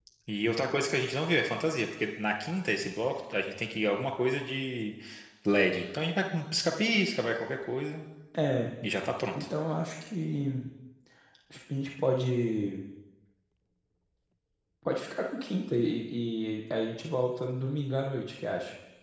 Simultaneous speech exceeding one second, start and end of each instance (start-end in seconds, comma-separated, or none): none